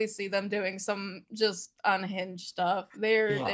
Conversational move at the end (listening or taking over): taking over